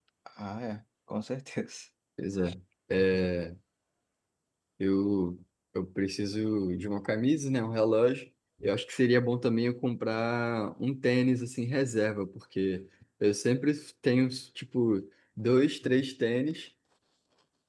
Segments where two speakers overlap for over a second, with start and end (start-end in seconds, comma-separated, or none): none